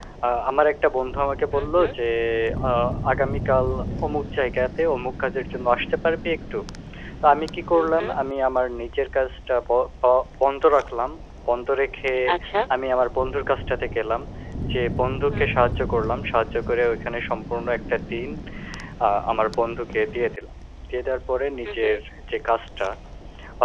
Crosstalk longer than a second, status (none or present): none